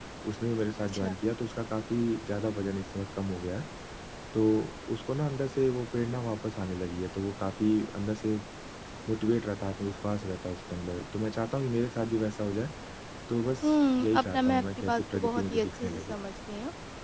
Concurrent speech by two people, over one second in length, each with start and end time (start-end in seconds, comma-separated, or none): 14.1-16.2